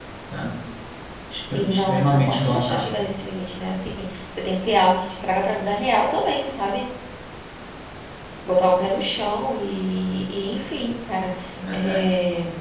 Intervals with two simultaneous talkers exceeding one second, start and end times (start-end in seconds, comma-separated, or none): 1.4-2.9